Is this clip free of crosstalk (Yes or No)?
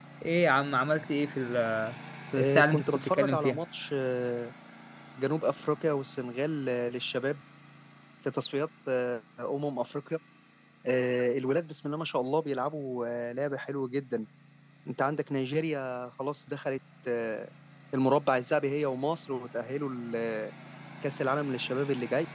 No